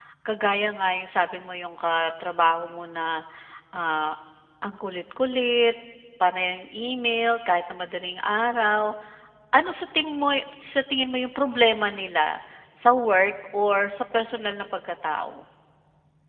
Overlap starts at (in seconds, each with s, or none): none